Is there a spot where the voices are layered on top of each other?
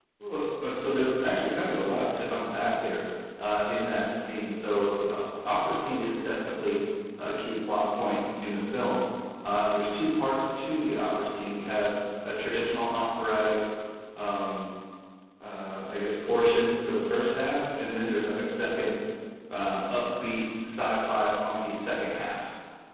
No

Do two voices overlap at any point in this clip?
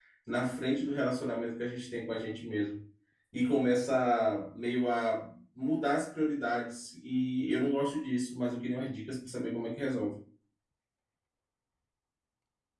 No

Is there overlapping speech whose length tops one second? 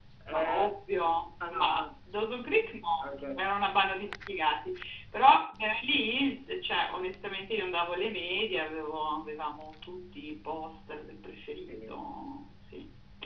No

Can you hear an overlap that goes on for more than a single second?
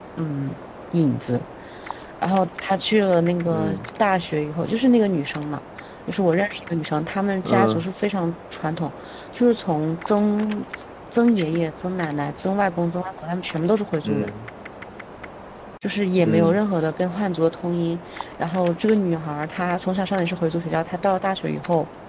No

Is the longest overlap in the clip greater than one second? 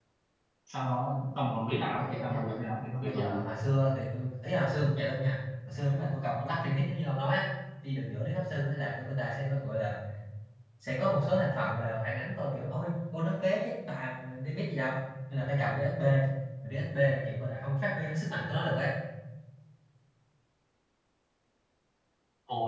Yes, from 2.0 s

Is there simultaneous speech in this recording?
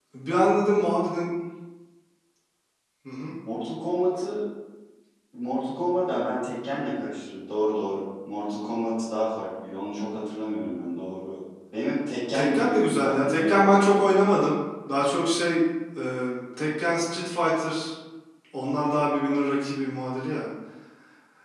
Yes, from 12.3 s

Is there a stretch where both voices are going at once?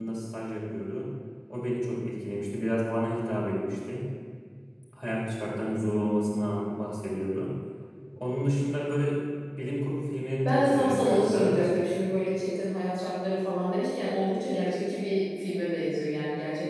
Yes, from 10.4 s

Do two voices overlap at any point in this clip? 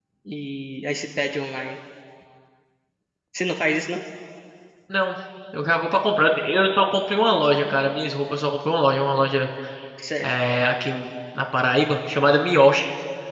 No

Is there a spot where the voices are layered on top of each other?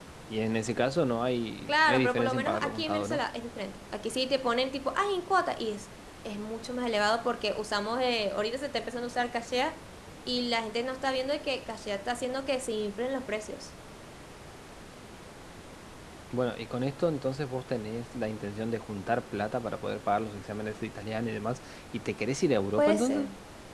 Yes, from 1.7 s

